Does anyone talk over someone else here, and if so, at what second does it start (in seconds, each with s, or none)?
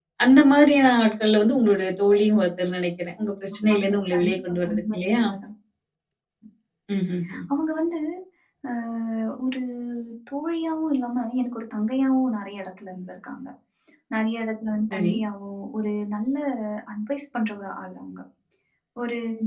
3.5 s